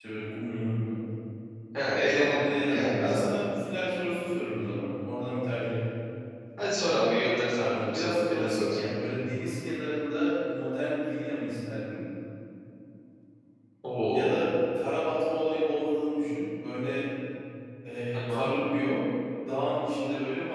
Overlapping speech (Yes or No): Yes